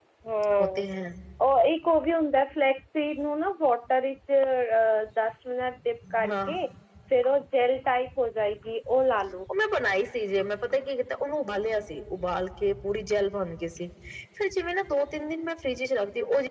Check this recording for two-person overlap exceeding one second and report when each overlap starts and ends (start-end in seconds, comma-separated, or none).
none